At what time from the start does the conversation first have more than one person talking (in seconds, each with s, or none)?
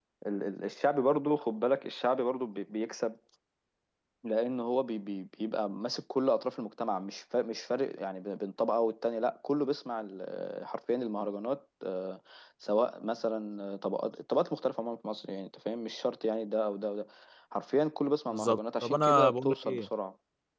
18.3 s